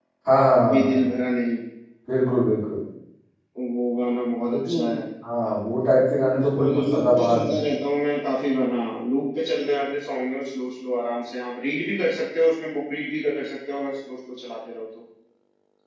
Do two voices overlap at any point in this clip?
Yes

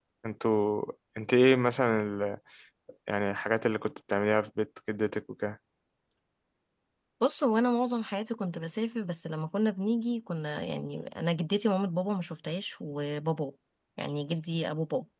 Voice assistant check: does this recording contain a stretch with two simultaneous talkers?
No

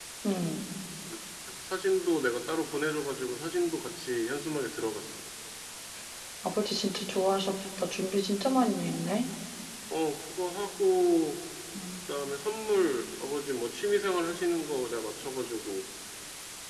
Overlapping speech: No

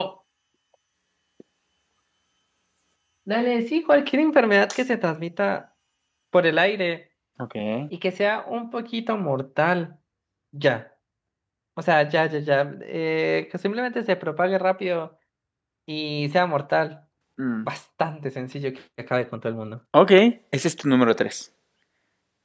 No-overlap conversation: Yes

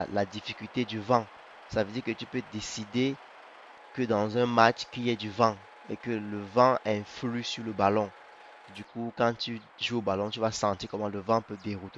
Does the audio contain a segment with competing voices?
No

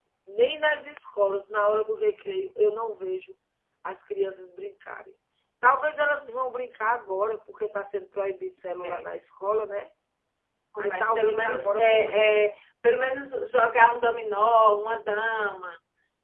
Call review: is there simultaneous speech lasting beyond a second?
Yes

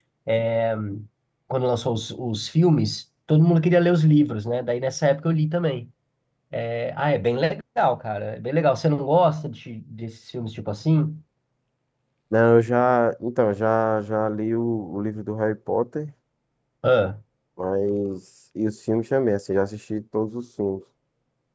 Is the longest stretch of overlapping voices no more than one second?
Yes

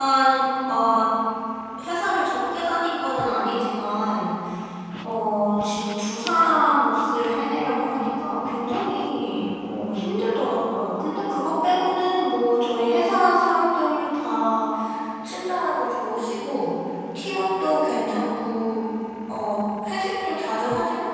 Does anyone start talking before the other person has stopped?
No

